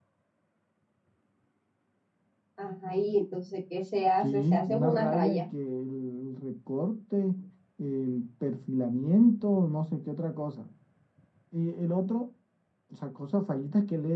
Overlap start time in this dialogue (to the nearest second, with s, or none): 4 s